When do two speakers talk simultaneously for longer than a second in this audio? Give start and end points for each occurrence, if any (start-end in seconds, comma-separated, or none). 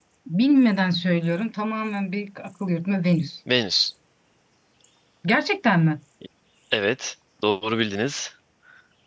none